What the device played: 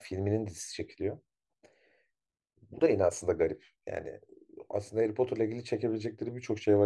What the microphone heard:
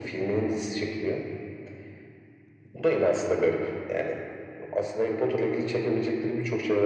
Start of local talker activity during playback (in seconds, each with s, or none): none